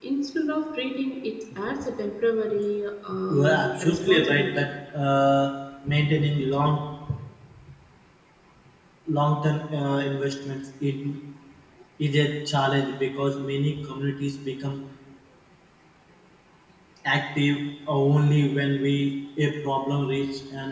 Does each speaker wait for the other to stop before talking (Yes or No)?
No